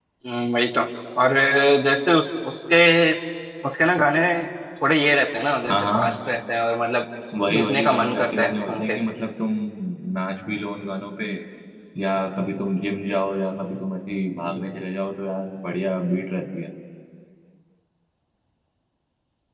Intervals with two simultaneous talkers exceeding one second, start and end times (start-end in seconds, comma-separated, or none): 7.5-8.9